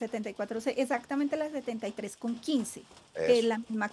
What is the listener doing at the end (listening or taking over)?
listening